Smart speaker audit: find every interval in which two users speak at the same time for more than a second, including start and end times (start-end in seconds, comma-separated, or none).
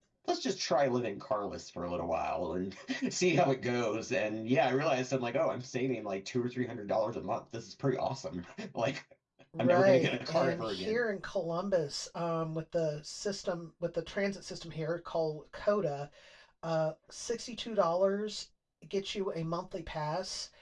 9.6-11.0